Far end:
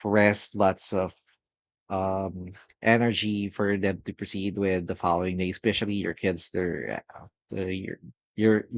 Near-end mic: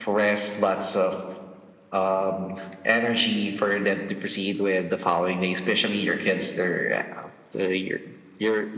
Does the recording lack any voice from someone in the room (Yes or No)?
Yes